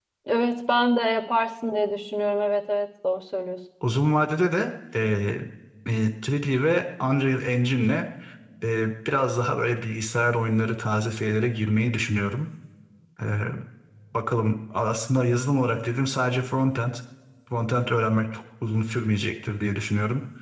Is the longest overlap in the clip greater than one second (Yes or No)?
No